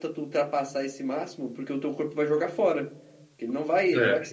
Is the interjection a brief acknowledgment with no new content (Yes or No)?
Yes